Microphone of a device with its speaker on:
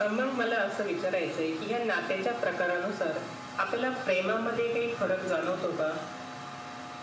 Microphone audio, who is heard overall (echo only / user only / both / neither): echo only